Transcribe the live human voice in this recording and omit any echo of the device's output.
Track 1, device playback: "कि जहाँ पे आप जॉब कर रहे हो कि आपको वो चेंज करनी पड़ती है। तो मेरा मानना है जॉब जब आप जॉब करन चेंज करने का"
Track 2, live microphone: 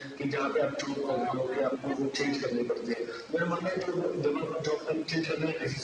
तो आपने जब अ,

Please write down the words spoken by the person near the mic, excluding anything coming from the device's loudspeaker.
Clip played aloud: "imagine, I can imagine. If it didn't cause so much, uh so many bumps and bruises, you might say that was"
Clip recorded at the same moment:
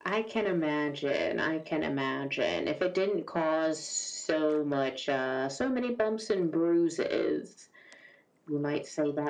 none

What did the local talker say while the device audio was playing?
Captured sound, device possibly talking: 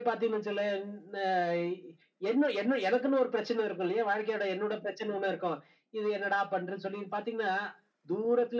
none

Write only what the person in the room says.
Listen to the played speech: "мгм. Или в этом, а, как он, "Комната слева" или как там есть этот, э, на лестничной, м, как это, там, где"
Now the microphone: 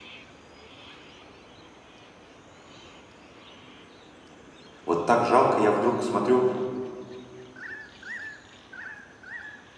Вот так жалко, я вдруг смотрю,

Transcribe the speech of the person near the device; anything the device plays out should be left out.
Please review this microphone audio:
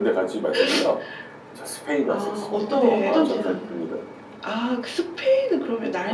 아 어떤 어떤 채널?

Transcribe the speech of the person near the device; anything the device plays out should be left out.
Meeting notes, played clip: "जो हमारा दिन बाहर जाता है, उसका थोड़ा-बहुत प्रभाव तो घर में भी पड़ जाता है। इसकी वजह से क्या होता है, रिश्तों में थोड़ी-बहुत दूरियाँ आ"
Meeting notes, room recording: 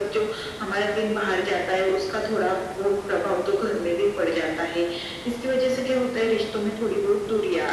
none

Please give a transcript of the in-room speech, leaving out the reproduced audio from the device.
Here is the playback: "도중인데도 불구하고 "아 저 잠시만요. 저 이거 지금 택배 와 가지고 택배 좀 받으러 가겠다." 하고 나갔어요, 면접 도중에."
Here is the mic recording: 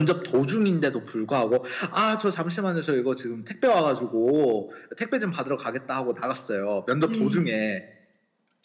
네.

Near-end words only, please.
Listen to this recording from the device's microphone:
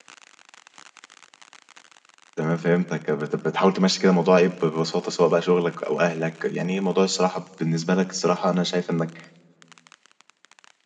تمام فهمتك، بت بتحاول تمشّي كده الموضوع إيه، ب ببساطة سواء بقى شغلك أو أهلك، يعني إيه موضوع الصراحة بالنسبة لك الصراحة أنا شايف إنك

